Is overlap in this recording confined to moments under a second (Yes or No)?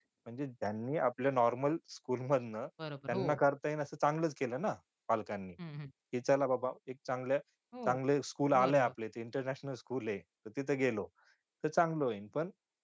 Yes